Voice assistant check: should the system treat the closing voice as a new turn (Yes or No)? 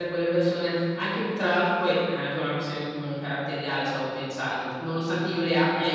No